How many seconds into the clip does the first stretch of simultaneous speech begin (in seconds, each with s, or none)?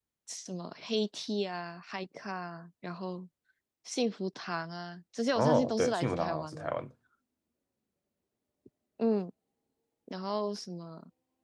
5.4 s